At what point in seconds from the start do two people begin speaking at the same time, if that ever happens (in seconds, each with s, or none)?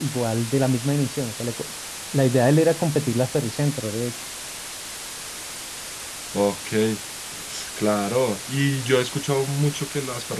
none